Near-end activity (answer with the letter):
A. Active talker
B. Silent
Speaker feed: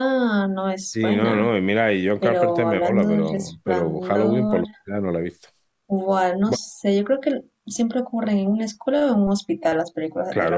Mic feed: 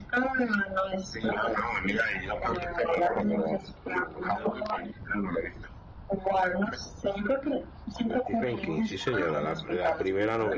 A